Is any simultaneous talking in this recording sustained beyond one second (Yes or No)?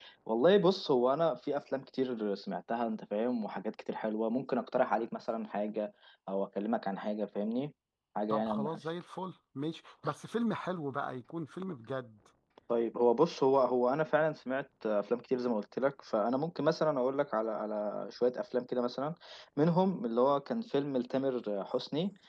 No